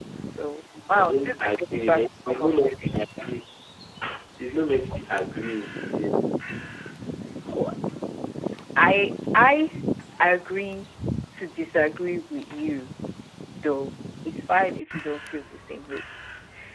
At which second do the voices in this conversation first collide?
0.9 s

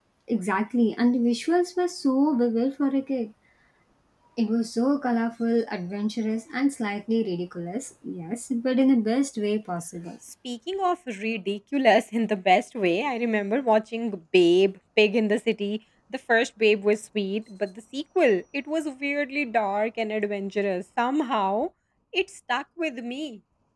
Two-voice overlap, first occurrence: none

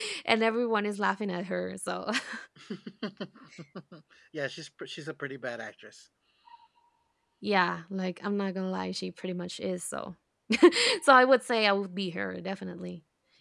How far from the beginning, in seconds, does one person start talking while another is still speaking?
none

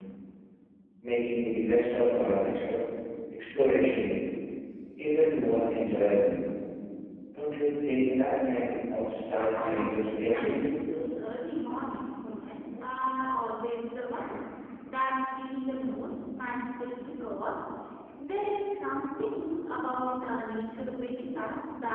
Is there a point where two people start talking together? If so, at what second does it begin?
9.6 s

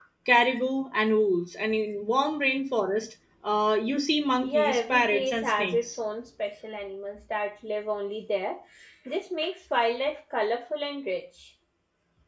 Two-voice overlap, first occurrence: 4.4 s

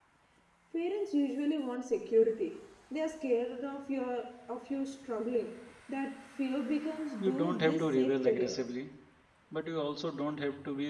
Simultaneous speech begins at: 7.2 s

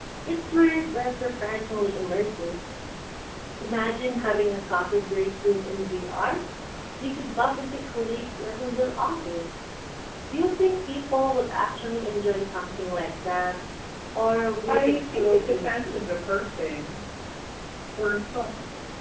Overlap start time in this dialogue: 14.7 s

